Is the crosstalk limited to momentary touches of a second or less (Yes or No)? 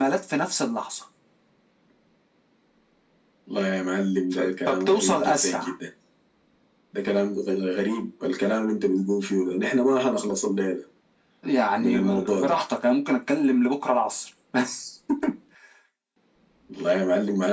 No